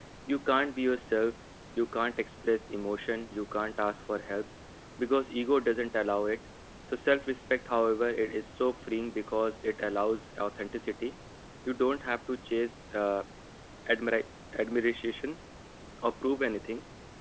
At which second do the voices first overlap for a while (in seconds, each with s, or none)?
none